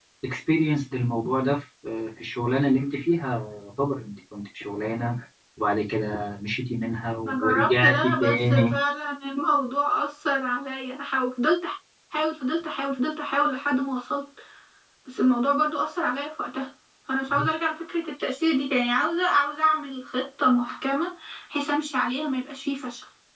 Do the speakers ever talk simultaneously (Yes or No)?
Yes